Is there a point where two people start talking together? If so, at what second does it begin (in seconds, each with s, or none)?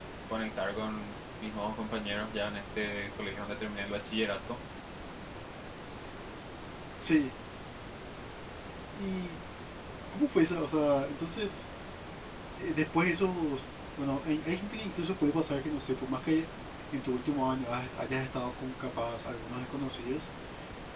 none